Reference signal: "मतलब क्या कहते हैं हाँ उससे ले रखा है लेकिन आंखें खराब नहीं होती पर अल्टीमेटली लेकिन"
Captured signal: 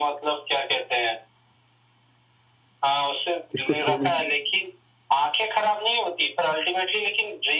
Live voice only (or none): इसको छोड़ने